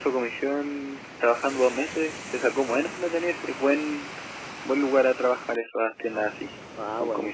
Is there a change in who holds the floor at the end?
Yes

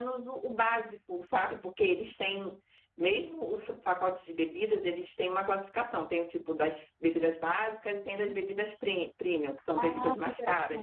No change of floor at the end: No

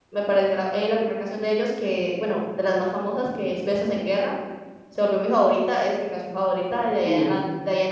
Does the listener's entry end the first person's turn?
No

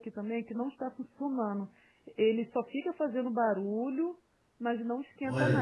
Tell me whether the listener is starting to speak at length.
Yes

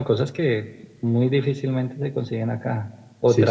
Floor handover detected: No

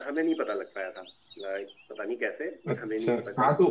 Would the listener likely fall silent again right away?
No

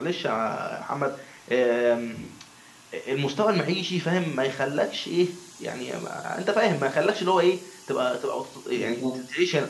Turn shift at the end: No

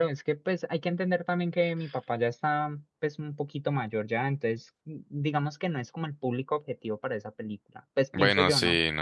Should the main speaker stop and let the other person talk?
Yes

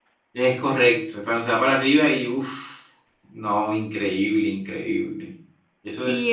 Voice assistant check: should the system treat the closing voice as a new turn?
Yes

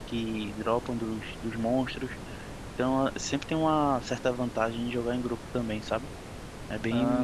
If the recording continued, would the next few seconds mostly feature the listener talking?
Yes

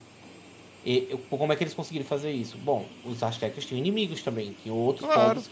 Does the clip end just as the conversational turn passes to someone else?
No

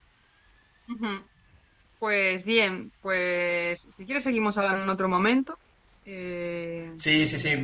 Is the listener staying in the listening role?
No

